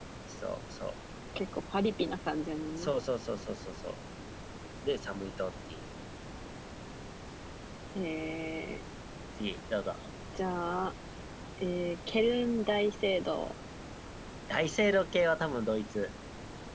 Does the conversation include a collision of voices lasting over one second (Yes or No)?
No